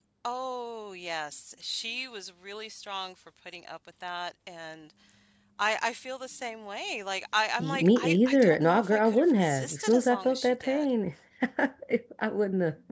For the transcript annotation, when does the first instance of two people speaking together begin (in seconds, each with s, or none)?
7.6 s